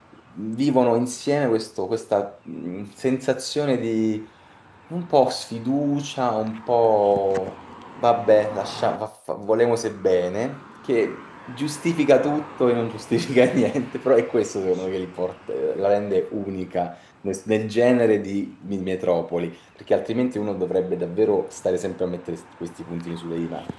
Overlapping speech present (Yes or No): No